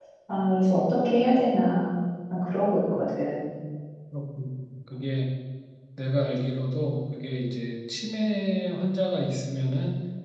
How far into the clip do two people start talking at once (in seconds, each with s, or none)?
none